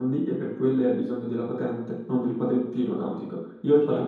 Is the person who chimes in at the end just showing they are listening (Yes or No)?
Yes